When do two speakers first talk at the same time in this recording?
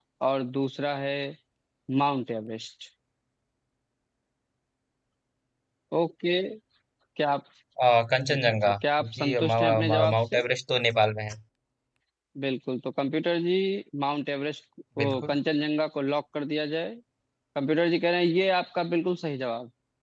8 s

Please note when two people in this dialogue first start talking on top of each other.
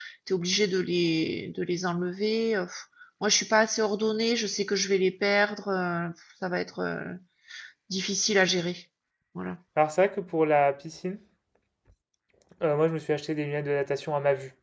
none

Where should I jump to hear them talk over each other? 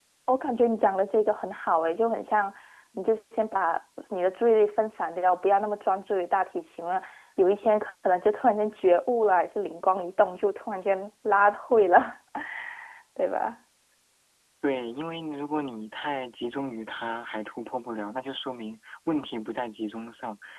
none

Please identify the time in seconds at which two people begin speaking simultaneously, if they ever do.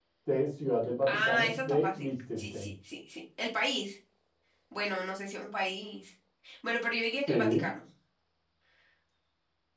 1 s

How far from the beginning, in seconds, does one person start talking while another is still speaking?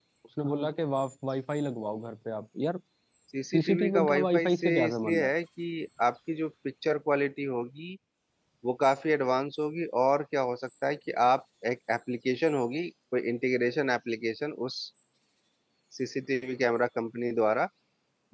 4 s

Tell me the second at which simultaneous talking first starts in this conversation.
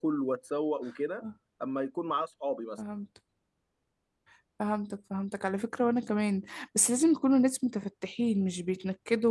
none

